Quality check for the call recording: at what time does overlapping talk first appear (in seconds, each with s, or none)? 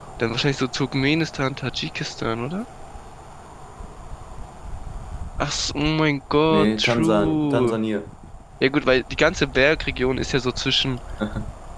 6.5 s